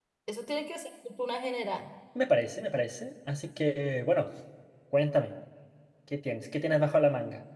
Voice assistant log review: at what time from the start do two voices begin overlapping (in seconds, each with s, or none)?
none